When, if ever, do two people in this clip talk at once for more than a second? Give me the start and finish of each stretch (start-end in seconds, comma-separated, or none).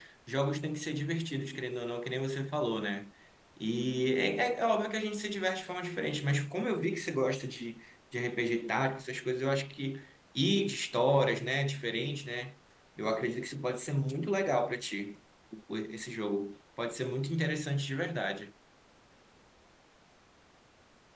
none